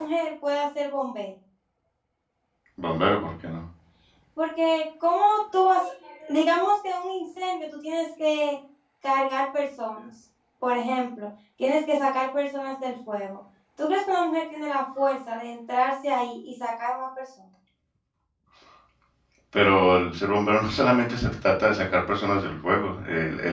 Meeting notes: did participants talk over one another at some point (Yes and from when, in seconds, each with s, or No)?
No